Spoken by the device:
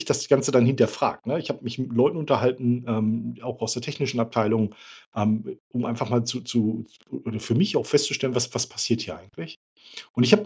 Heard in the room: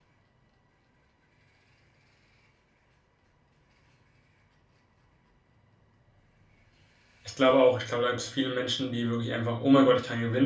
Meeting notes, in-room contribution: present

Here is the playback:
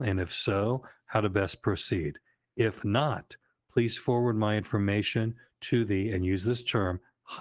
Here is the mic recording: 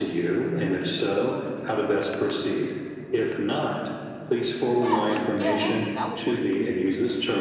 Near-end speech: present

